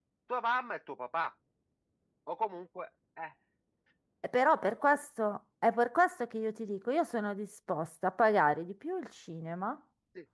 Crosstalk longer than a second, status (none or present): none